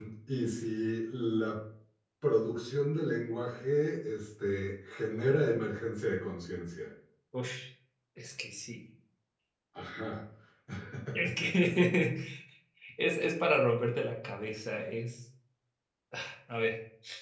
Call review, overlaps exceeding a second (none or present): none